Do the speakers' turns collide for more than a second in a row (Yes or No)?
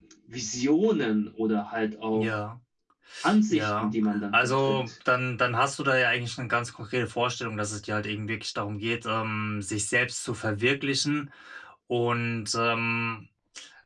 Yes